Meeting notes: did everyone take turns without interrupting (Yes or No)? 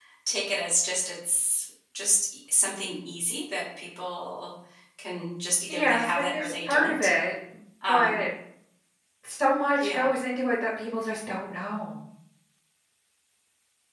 No